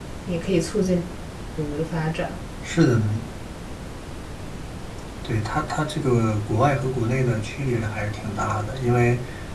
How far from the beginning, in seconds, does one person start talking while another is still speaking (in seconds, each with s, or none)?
none